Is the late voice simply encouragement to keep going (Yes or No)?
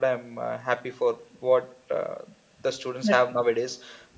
Yes